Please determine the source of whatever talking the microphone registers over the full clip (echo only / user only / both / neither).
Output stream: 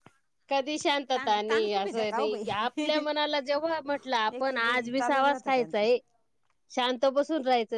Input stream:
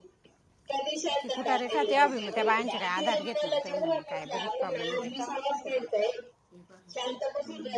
both